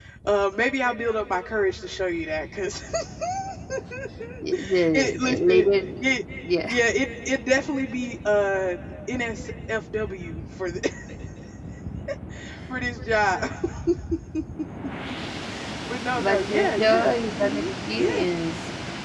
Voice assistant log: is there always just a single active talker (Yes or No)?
No